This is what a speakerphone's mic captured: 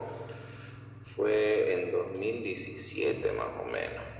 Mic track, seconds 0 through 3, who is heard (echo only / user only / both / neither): echo only